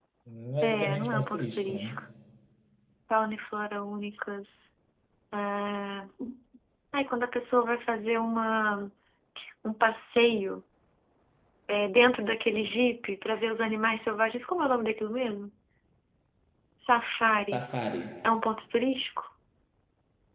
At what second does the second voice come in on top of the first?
0.6 s

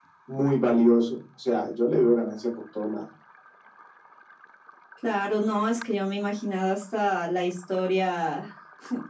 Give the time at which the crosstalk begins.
none

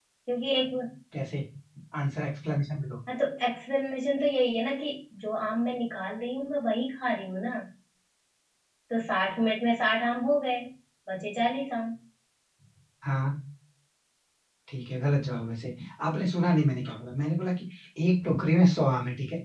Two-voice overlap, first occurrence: none

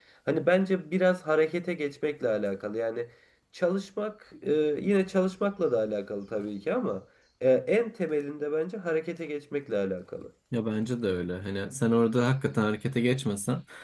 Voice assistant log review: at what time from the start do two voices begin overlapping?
none

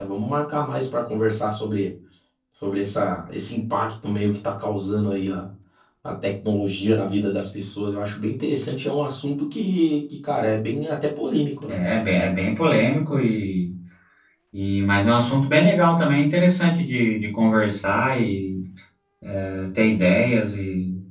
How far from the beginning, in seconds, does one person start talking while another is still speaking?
none

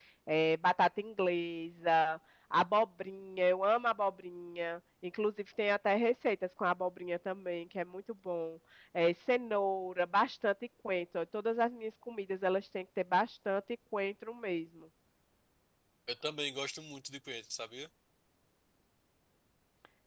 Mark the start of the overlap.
none

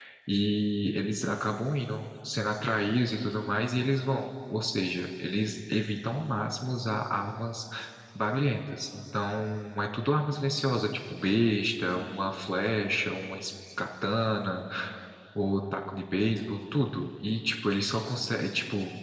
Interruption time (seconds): none

